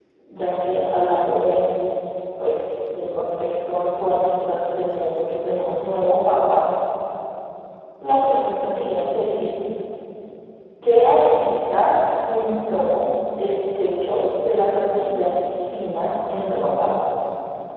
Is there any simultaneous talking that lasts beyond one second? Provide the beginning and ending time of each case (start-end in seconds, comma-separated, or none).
none